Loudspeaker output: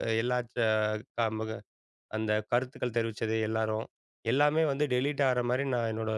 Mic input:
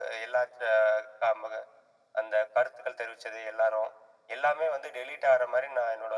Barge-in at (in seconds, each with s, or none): none